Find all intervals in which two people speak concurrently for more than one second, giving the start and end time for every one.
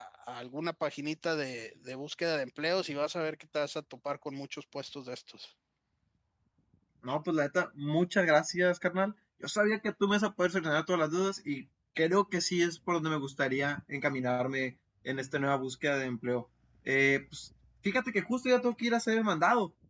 none

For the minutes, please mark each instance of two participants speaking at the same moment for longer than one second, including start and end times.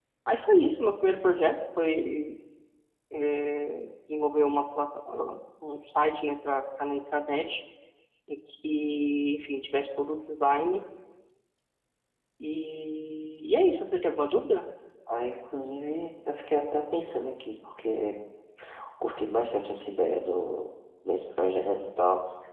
none

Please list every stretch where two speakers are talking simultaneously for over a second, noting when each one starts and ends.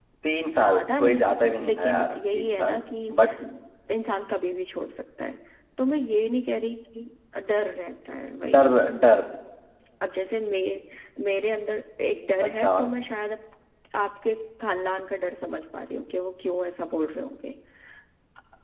0.6-2.8

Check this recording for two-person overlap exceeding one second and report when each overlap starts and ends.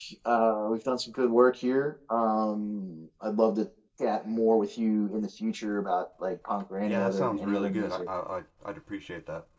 6.8-8.1

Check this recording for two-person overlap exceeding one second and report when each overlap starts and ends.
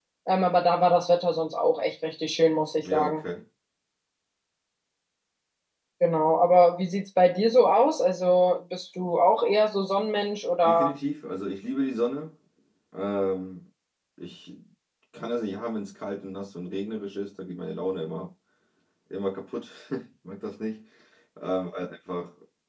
none

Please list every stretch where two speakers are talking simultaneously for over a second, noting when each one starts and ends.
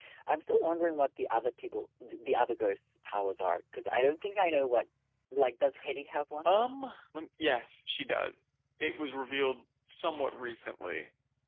none

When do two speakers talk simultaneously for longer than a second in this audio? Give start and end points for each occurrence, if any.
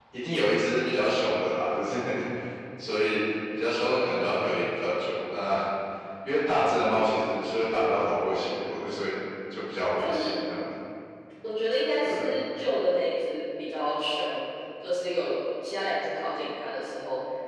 none

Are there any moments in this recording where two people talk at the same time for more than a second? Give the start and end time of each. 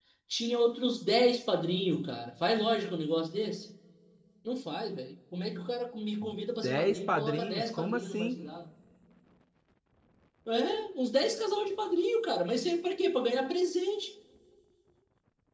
6.6-8.4

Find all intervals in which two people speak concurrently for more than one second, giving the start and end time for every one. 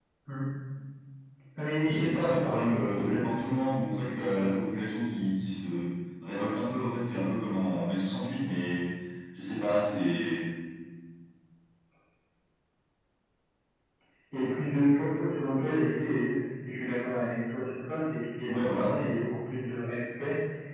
1.9-3.4

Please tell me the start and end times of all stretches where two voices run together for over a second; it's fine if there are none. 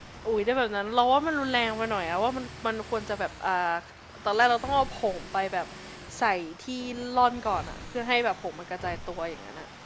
none

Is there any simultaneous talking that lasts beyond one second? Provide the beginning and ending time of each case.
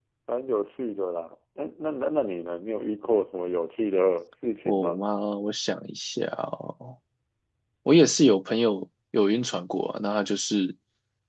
none

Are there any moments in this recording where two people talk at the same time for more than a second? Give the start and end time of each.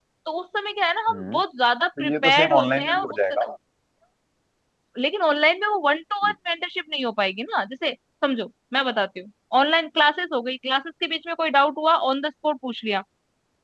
2.0-3.4

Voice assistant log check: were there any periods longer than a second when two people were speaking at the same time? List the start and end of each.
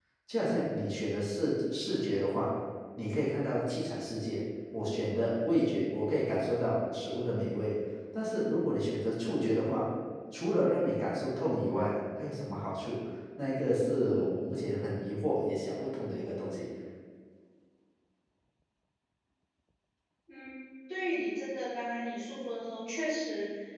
none

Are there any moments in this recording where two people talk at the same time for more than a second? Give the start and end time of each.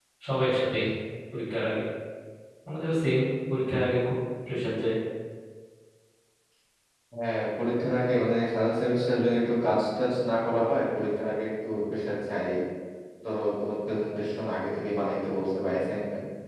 none

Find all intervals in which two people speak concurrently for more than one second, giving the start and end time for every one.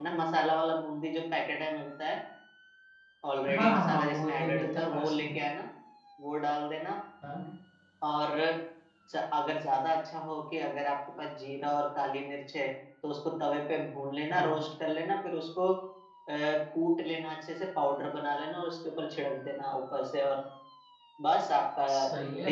3.5-5.5

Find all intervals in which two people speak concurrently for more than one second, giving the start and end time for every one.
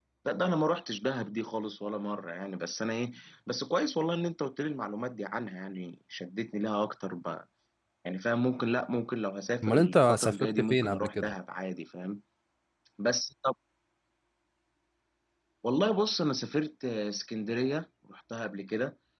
9.6-11.3

